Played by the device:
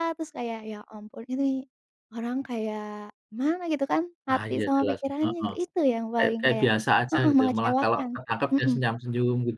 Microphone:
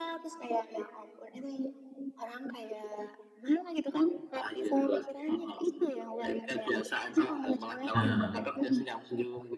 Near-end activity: present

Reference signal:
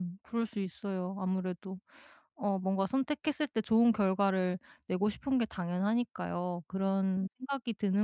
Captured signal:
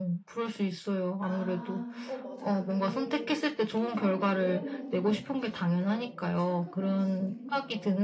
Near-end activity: present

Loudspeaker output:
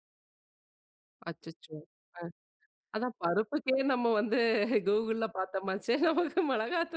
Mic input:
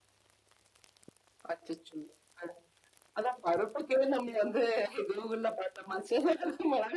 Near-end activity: none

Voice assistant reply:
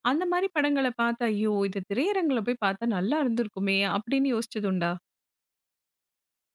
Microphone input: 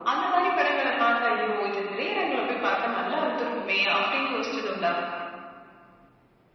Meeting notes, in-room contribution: none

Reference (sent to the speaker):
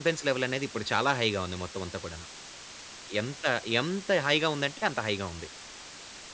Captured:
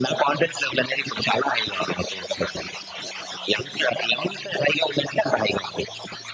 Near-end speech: none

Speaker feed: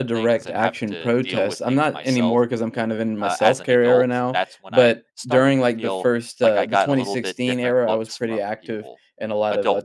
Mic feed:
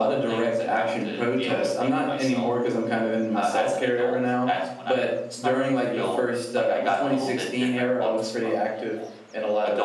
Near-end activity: none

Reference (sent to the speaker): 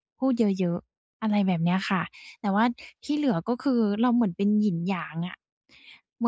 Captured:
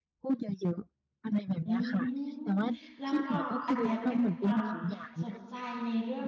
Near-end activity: present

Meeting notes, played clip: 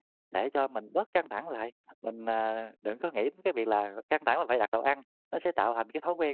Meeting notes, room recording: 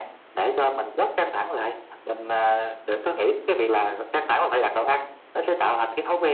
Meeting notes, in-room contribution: none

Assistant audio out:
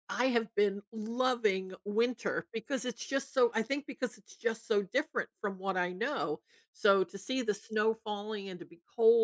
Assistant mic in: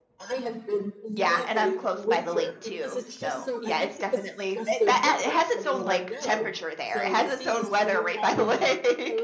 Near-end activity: present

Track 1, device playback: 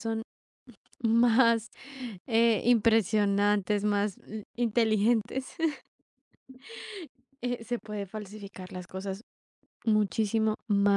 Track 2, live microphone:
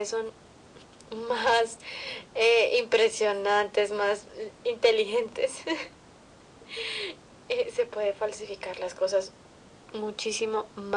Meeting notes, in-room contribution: none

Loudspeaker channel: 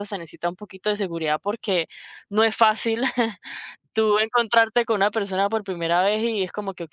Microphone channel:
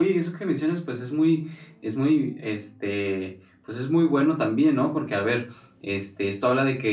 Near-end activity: present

